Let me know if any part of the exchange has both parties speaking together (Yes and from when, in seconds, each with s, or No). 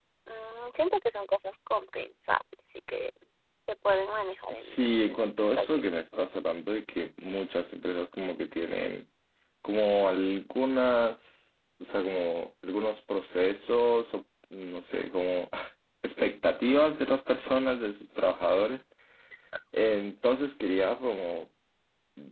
Yes, from 4.5 s